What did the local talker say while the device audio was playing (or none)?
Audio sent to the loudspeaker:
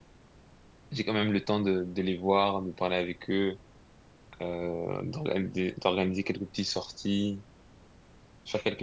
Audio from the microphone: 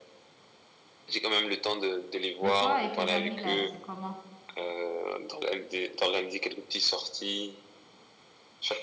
Mais toi et tes amis là, c'est comment?